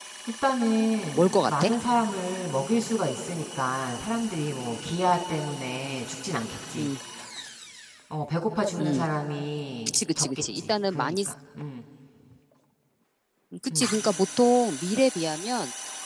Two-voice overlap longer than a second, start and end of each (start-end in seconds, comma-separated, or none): 9.9-11.2